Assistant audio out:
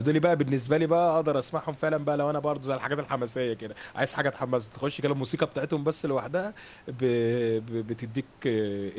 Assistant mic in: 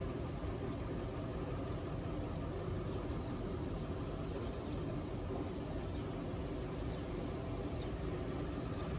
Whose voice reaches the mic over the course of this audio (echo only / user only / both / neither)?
neither